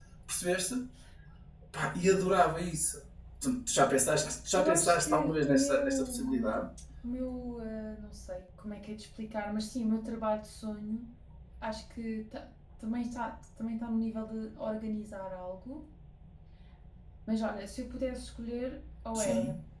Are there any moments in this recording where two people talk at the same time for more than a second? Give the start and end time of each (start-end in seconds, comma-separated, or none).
4.5-6.6